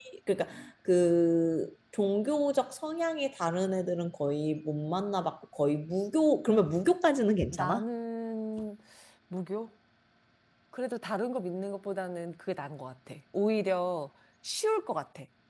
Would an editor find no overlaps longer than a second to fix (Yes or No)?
Yes